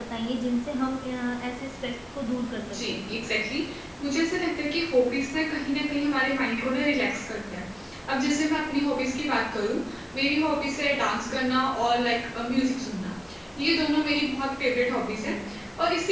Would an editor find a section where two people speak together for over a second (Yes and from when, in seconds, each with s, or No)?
No